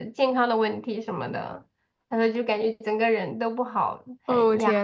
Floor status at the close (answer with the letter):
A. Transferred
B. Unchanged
A